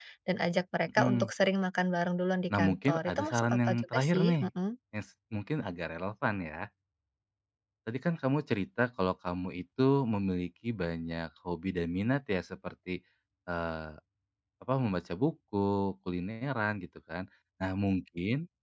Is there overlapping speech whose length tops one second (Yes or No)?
Yes